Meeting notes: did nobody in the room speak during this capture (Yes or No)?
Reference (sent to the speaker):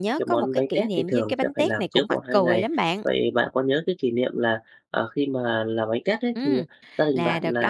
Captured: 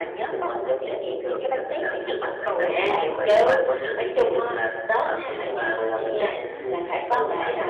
No